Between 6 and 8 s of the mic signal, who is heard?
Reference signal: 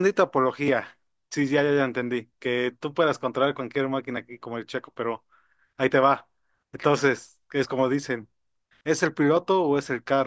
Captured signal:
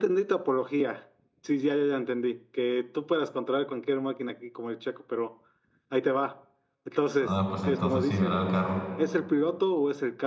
both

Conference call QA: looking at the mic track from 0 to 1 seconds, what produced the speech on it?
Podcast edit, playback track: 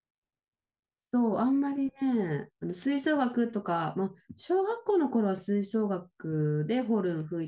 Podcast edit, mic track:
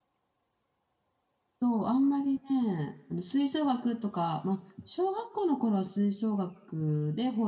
neither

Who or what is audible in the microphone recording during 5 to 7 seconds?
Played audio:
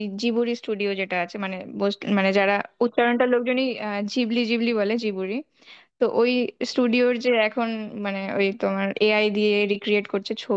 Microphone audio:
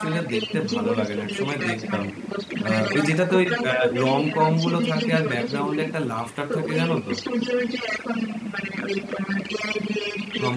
both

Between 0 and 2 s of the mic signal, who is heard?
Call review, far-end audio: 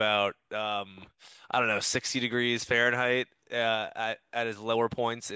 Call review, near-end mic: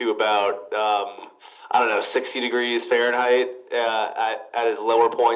echo only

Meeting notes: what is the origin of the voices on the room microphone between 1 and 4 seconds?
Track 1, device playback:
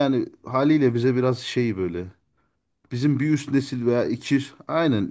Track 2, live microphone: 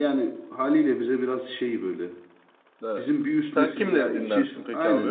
both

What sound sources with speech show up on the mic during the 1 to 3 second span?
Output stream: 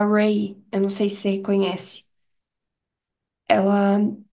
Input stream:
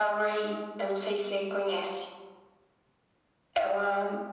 echo only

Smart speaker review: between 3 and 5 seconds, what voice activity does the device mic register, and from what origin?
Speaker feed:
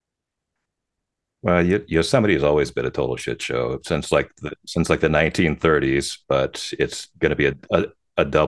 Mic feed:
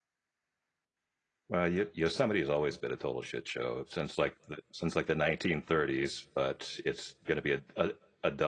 echo only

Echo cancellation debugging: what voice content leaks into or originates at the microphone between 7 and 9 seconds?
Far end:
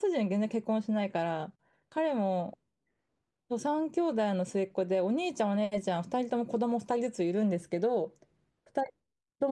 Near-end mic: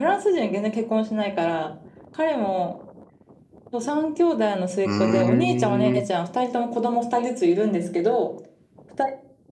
echo only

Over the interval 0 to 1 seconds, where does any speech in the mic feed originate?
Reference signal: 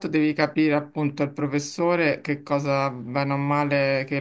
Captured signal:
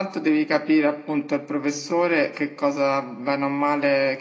echo only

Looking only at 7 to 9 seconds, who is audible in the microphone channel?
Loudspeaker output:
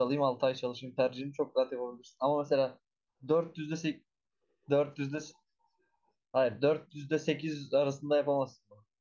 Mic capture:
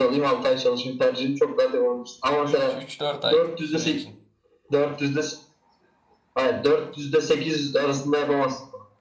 echo only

